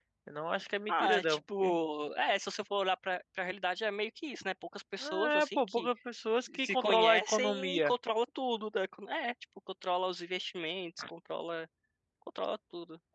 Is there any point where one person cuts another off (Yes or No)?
Yes